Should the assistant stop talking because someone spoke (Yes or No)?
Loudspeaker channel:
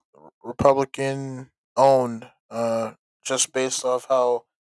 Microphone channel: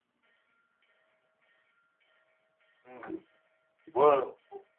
Yes